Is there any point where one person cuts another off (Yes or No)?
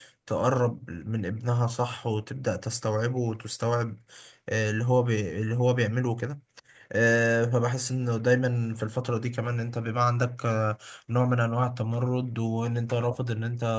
No